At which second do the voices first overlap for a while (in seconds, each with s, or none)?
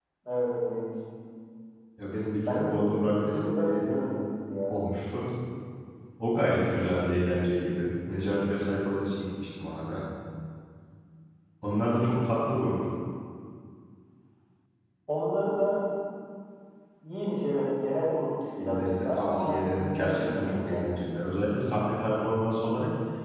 2.5 s